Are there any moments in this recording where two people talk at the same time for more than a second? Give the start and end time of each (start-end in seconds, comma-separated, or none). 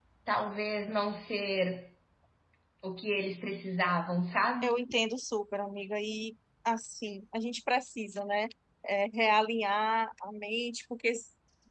none